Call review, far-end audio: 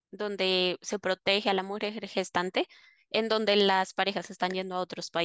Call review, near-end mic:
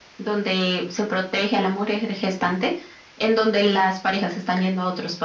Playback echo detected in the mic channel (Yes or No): Yes